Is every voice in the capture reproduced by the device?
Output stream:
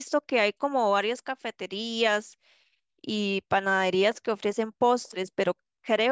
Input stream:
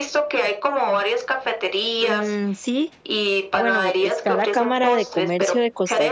No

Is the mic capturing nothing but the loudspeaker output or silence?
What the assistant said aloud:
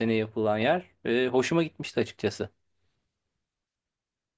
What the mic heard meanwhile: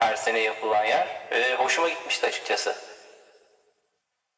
Yes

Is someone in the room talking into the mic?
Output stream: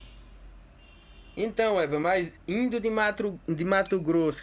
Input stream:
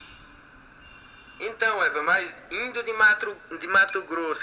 No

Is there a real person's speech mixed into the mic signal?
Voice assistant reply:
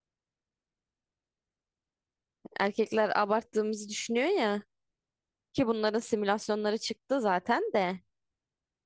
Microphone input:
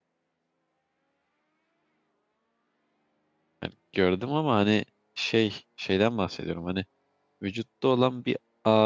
Yes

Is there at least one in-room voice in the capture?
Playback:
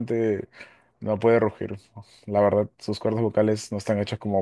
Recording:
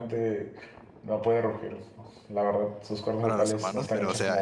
Yes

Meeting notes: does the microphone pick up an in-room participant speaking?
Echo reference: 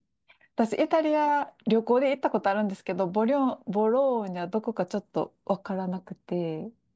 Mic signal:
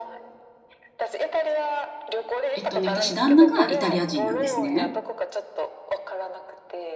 Yes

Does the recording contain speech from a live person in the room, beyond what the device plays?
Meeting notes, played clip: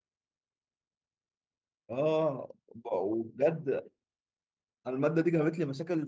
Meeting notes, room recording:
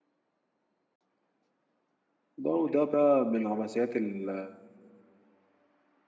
Yes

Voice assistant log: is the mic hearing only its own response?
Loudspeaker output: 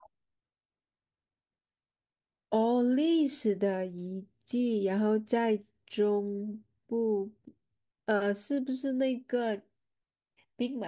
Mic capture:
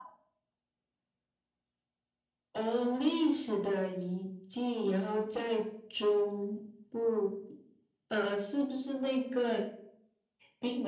Yes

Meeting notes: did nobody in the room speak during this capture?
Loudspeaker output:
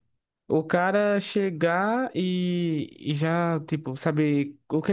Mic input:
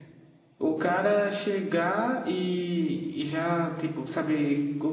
Yes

